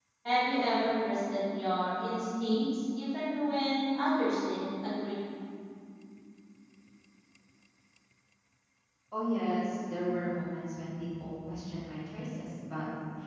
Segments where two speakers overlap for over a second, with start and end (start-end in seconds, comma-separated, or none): none